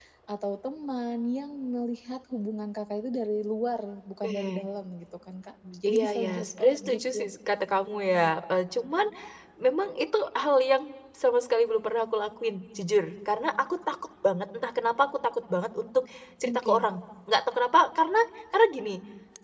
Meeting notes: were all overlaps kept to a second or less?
No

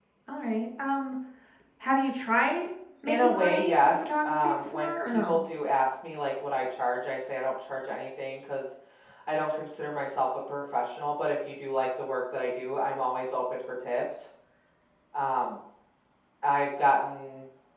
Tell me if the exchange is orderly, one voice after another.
No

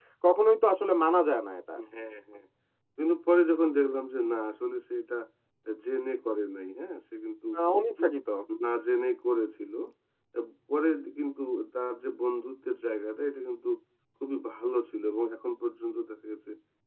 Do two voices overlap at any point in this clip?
No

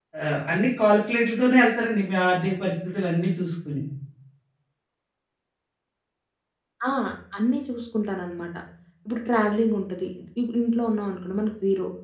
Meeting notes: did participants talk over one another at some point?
No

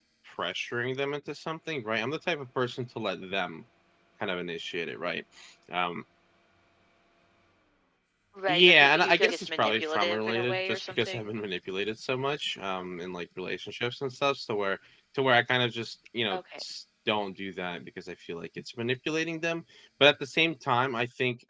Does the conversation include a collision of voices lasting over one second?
Yes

